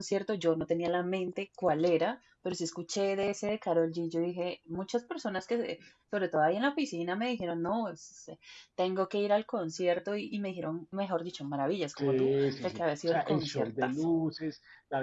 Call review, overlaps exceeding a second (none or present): present